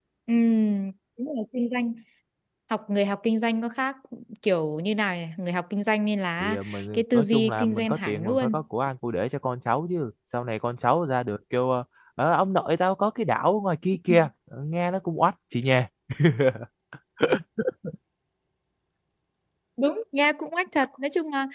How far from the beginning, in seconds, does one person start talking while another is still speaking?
6.4 s

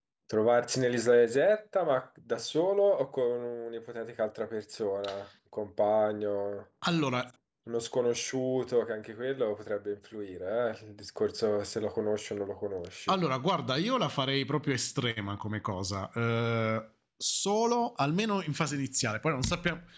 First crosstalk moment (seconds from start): none

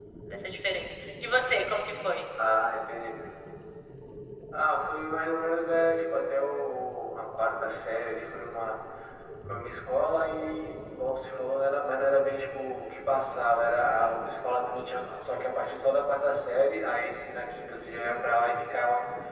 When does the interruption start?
none

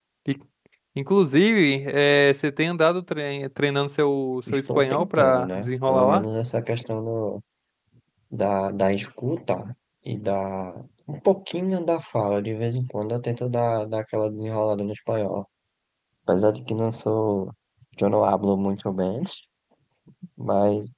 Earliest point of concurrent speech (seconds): 4.5 s

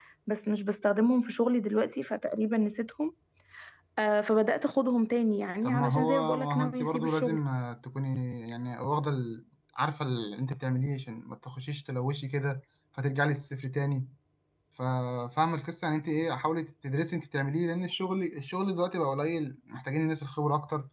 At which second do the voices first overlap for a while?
5.6 s

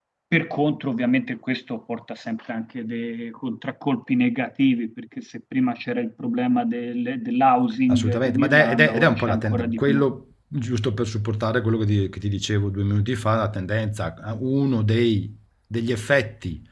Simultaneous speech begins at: 7.9 s

